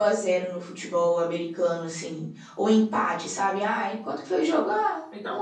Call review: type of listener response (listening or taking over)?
taking over